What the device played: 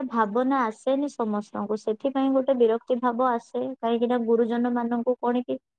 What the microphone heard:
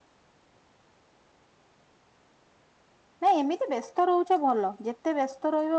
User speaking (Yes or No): Yes